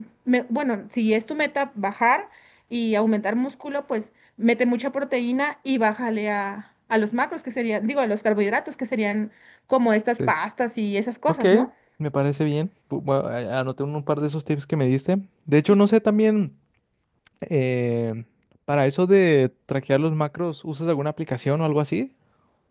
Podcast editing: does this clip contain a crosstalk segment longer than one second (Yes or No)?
No